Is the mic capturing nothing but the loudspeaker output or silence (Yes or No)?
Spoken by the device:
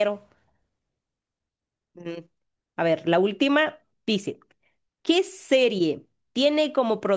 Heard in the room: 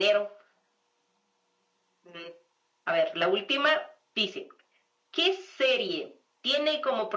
Yes